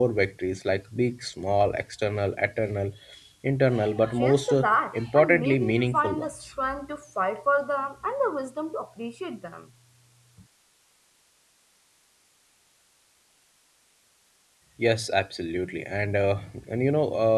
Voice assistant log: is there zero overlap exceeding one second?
No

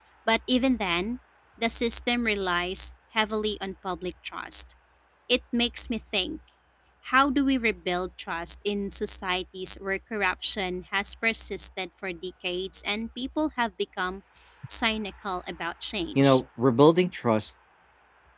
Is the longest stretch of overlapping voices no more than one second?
Yes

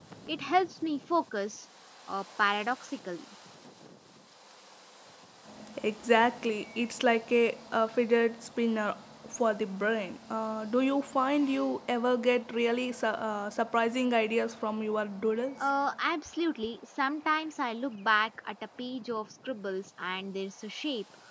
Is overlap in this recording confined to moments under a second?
Yes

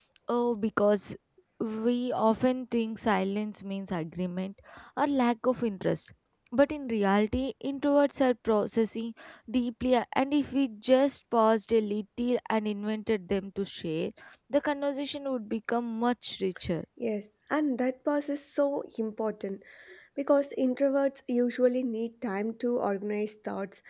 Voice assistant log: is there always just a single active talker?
Yes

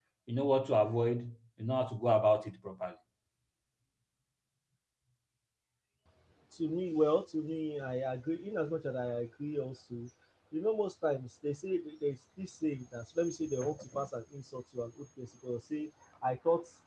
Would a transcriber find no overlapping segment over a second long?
Yes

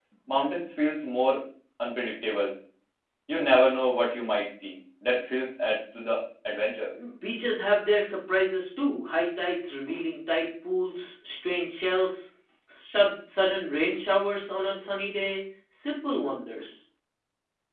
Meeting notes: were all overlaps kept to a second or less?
Yes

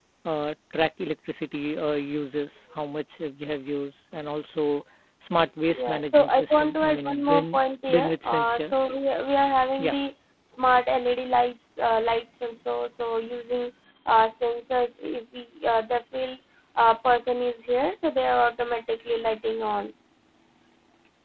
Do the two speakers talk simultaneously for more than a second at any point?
Yes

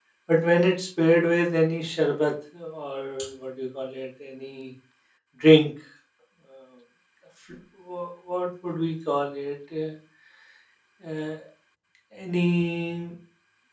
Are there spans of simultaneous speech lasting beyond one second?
No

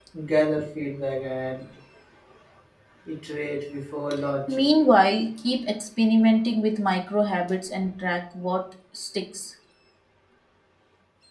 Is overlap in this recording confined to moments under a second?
Yes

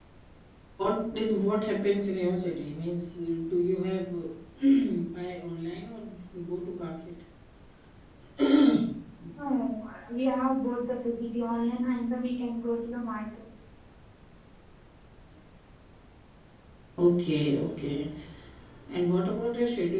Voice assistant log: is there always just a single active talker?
Yes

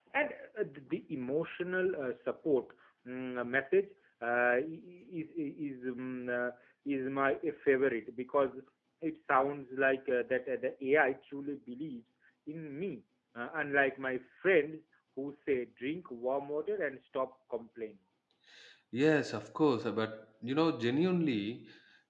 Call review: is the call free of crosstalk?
Yes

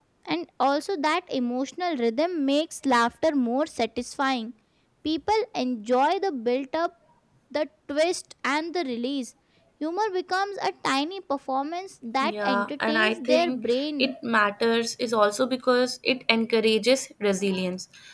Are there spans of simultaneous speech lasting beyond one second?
Yes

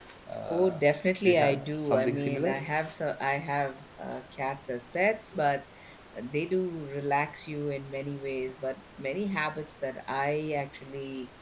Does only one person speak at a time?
No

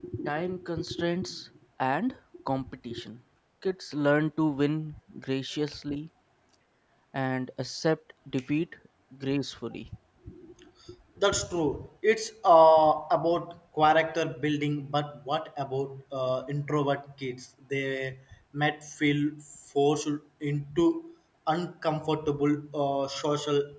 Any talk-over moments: No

